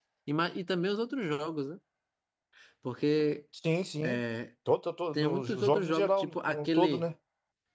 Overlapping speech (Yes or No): Yes